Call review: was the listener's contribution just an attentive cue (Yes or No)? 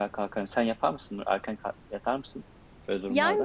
No